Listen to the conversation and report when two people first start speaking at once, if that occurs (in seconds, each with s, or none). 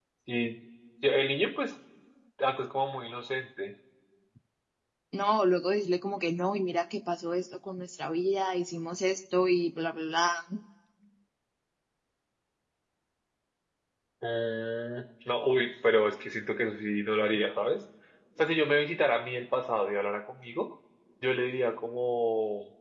none